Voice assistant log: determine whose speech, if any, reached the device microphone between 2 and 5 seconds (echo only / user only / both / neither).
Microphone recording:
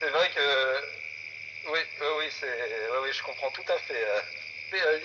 echo only